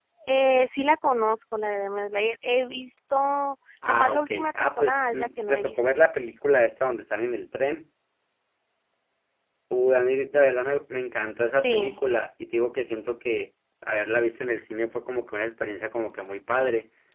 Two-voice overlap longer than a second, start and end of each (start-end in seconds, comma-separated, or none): 3.9-5.8